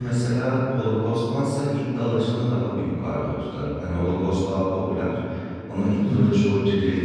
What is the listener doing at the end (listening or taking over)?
listening